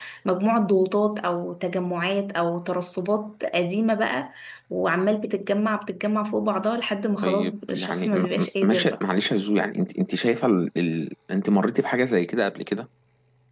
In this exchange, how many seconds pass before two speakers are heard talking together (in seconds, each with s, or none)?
7.2 s